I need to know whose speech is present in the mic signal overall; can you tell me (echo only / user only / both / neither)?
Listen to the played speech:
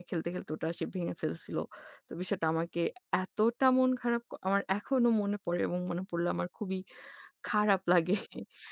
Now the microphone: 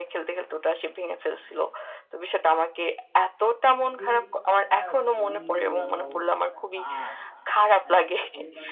both